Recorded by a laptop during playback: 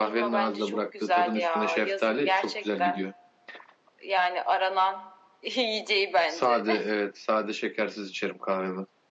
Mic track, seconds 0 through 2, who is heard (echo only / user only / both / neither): both